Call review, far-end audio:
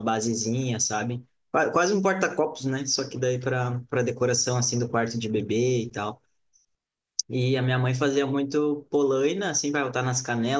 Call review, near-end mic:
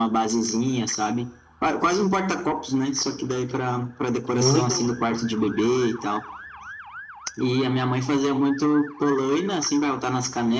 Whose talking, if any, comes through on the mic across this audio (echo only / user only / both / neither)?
both